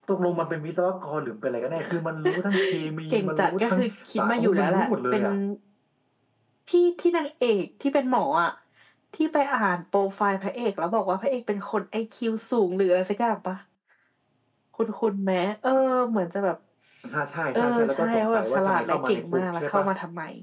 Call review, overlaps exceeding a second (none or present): present